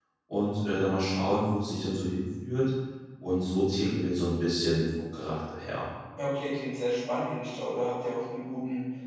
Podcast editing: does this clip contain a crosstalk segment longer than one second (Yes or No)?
No